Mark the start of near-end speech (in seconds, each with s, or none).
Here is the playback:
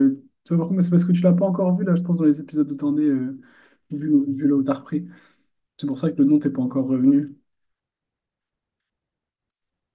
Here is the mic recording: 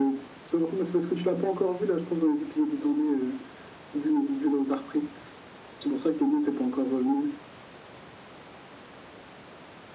none